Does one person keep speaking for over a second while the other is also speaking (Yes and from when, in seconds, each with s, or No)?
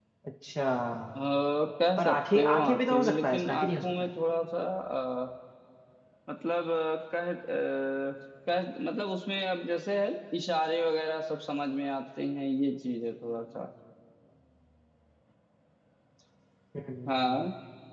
Yes, from 2.0 s